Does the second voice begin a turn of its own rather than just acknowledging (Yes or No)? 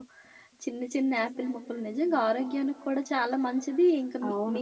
No